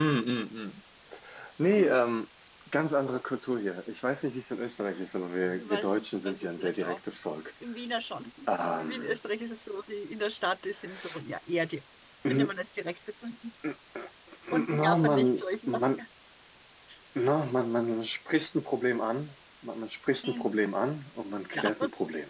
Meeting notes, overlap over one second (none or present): present